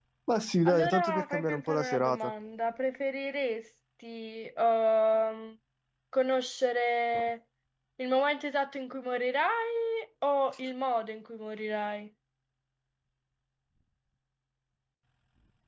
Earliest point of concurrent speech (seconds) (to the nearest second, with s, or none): 1 s